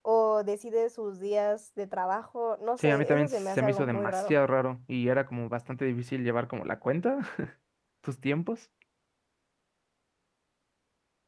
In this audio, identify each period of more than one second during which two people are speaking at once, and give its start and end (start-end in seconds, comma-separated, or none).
2.8-4.3